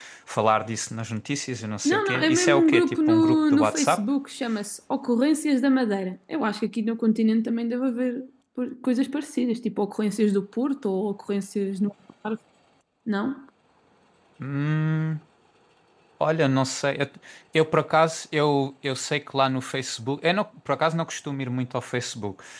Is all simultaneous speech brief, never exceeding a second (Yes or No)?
No